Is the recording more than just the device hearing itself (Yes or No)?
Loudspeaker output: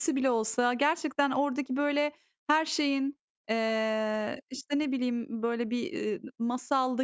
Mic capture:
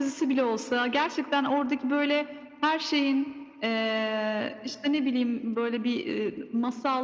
No